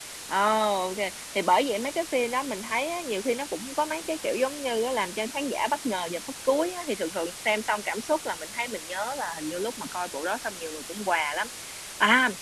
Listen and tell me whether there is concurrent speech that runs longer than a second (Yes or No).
No